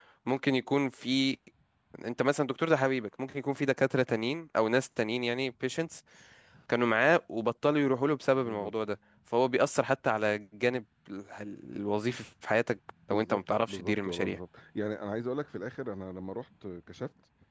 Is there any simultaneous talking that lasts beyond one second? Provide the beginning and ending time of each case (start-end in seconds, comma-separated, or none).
13.1-14.4